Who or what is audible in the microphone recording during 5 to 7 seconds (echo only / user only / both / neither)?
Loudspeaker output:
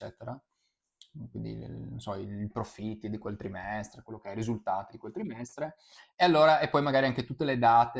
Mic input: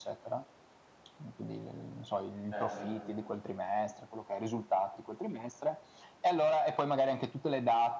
echo only